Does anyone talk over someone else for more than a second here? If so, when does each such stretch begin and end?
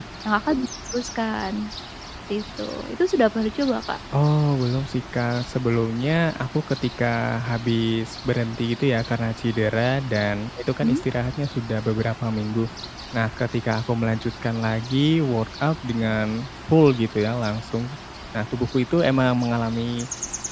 none

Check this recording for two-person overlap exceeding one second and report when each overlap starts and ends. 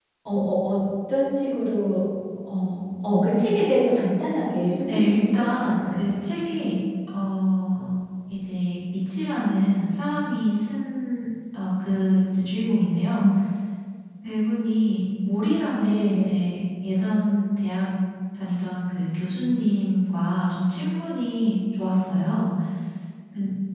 4.9-6.1

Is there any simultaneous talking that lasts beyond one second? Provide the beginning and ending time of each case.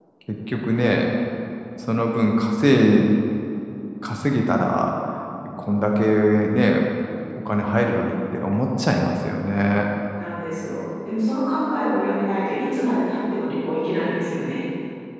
none

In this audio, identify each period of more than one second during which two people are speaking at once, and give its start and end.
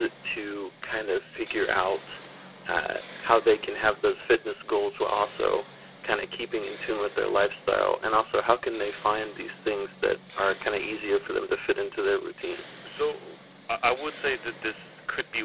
none

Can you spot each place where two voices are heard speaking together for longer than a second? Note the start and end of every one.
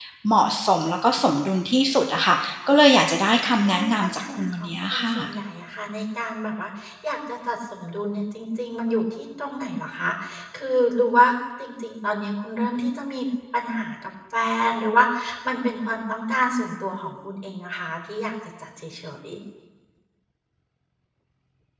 3.7-5.3

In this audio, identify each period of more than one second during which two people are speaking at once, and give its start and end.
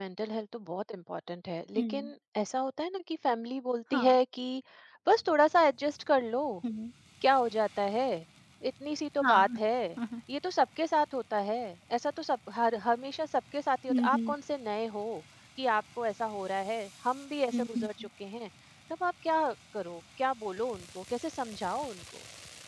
none

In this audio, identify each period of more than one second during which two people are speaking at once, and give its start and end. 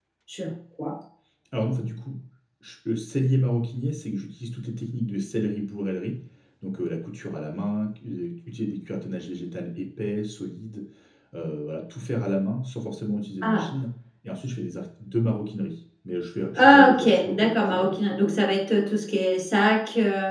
16.6-18.0

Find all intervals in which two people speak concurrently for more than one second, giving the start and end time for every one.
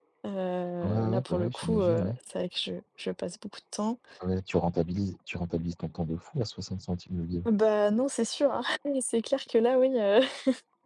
0.8-2.1

